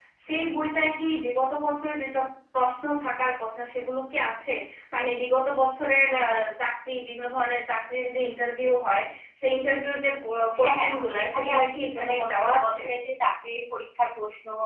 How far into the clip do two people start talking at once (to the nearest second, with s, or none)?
11 s